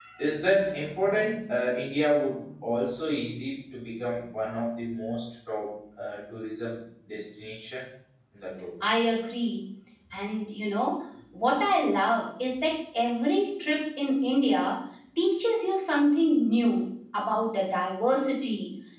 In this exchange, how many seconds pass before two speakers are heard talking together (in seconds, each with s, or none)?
none